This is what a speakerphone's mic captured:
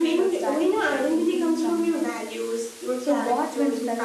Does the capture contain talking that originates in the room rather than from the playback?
Yes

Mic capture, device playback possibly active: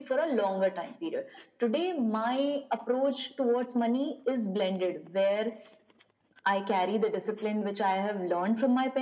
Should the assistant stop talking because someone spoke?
No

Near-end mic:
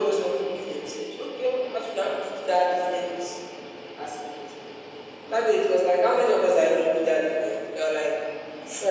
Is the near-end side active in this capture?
No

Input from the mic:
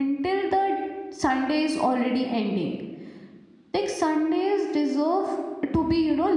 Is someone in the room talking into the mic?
Yes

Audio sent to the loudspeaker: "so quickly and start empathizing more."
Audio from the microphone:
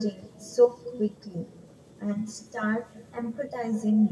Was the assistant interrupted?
No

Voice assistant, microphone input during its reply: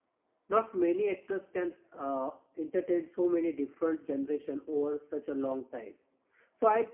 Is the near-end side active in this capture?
Yes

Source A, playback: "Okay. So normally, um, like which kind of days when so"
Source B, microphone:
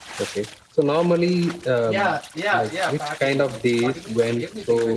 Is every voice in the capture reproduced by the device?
No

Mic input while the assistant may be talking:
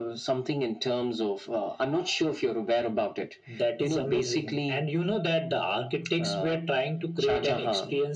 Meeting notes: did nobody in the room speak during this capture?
Yes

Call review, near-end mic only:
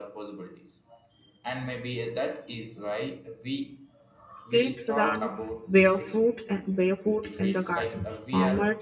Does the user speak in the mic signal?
Yes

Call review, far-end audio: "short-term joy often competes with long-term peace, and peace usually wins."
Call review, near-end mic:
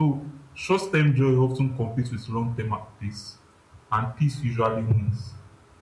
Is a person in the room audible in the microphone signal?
No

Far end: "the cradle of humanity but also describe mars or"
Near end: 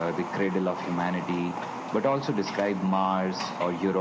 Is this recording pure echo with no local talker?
Yes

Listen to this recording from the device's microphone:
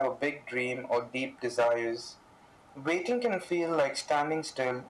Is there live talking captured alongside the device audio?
No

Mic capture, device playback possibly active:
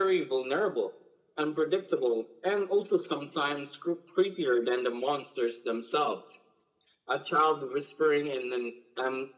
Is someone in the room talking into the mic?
No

